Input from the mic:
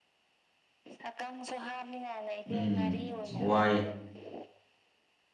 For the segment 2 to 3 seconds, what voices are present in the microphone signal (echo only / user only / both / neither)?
both